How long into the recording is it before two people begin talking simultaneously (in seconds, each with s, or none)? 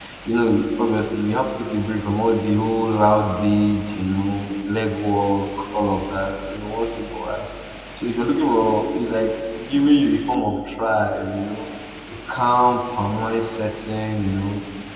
none